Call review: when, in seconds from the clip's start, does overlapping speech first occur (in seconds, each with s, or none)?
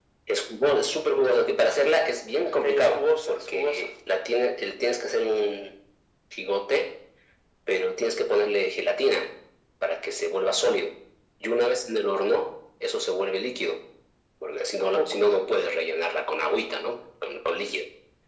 2.6 s